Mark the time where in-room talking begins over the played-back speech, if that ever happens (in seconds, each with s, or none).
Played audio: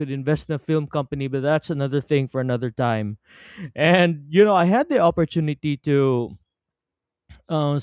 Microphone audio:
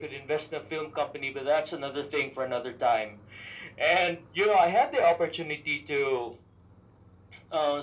none